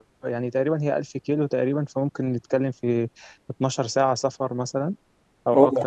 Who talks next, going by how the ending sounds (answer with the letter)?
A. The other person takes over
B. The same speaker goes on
A